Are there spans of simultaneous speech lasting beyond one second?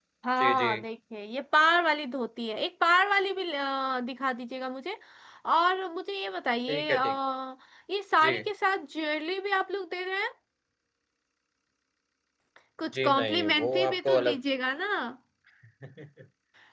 Yes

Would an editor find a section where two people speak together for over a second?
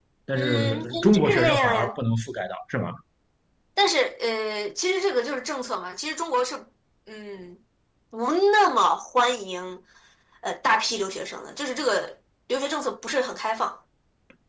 Yes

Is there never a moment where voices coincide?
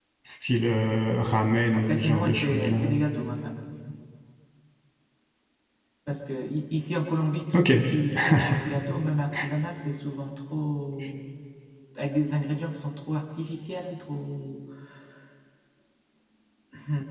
No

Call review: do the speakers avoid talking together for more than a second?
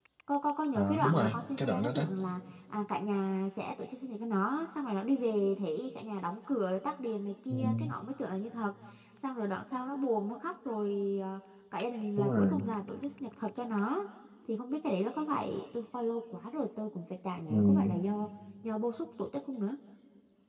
No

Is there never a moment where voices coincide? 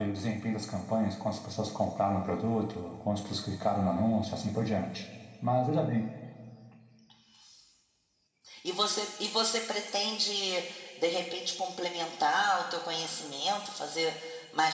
Yes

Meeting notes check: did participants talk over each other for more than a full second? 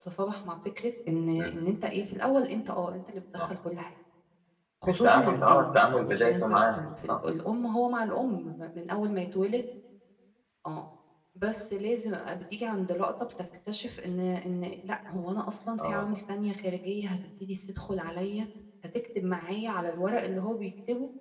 Yes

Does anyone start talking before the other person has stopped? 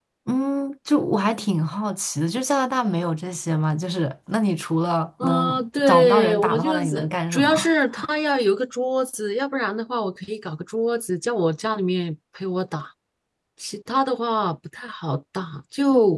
Yes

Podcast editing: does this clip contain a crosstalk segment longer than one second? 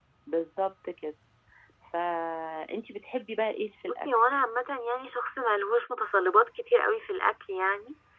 No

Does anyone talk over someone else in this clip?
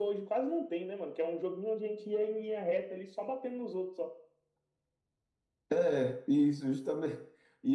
No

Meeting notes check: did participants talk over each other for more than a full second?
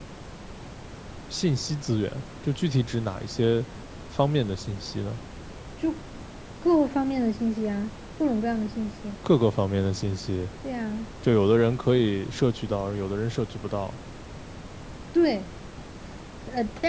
No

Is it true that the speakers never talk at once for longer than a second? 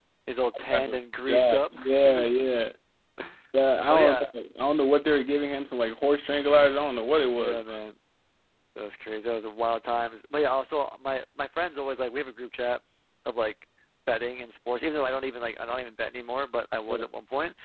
No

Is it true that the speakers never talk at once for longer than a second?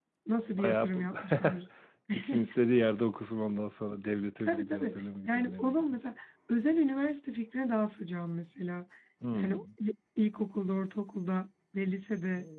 No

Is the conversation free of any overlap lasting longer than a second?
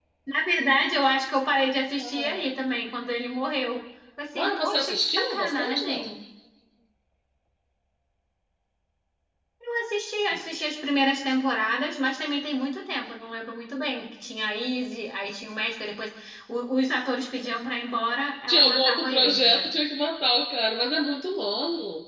No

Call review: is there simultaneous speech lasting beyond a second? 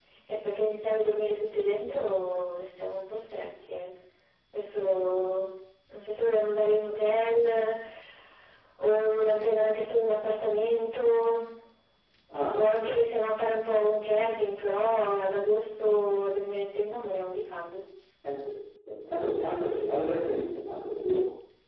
No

